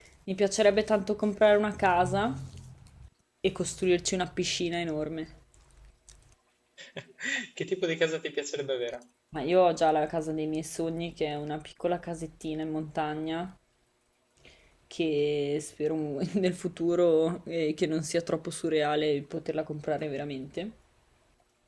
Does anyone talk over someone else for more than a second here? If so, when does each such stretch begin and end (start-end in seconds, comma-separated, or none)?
none